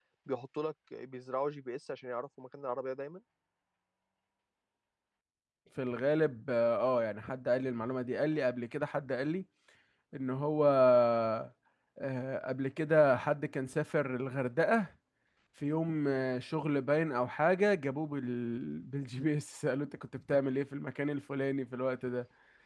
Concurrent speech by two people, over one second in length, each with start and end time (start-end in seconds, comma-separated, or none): none